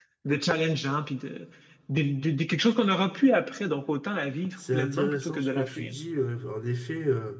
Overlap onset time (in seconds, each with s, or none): 4.6 s